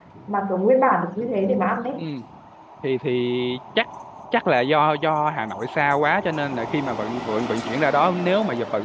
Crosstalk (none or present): none